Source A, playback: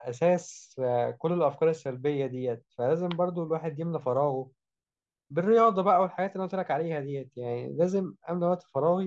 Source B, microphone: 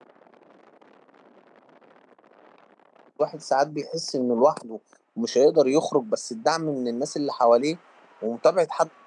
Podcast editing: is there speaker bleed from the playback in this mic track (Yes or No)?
No